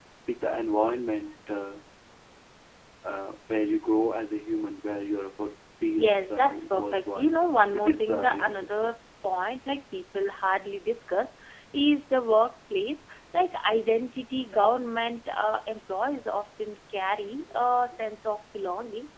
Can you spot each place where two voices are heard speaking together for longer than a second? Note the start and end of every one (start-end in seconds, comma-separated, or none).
6.0-7.3, 7.7-9.0